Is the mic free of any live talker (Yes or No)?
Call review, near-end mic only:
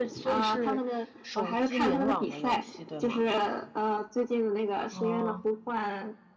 No